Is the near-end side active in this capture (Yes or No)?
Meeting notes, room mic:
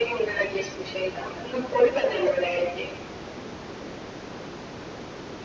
No